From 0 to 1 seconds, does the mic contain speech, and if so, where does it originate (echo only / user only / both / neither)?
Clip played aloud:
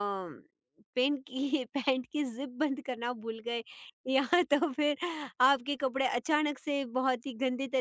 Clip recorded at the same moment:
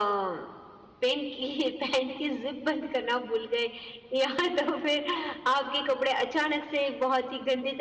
echo only